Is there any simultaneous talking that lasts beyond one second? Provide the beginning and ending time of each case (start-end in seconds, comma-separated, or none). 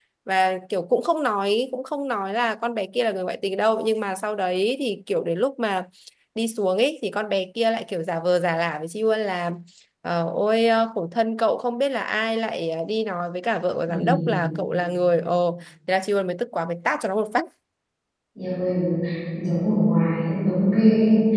none